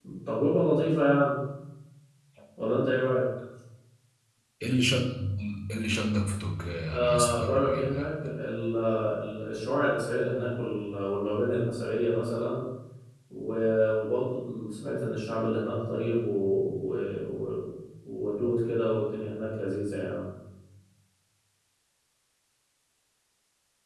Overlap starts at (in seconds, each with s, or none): 6.9 s